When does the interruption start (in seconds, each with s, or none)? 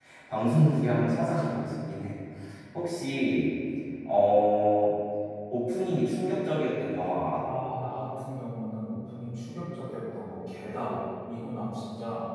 none